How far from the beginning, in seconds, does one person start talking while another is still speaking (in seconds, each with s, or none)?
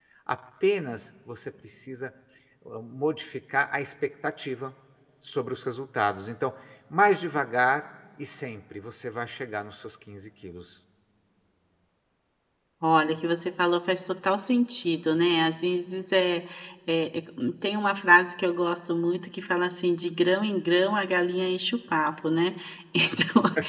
none